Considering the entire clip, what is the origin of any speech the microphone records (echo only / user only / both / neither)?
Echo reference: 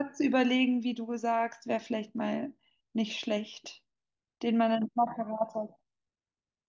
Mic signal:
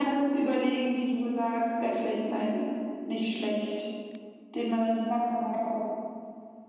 echo only